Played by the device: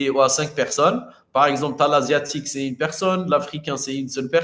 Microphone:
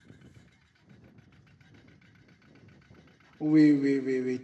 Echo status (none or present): none